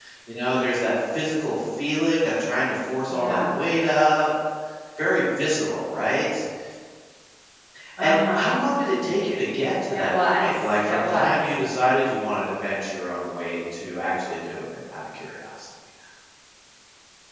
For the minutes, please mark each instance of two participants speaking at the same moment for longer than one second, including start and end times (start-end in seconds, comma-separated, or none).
9.9-11.5